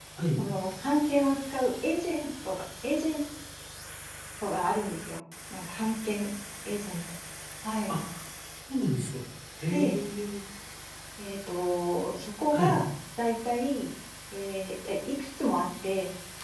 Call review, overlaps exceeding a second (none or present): none